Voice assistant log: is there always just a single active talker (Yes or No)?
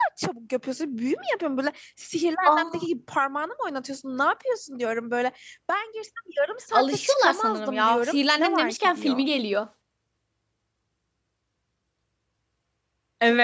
No